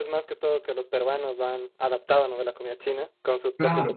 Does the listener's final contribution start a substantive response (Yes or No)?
Yes